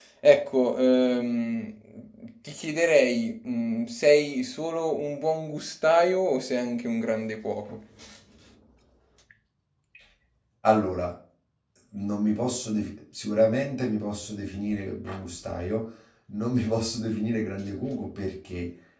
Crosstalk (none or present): none